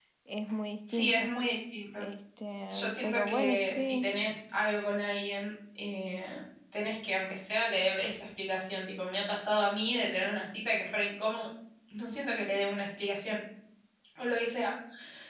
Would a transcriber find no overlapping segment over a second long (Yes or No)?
No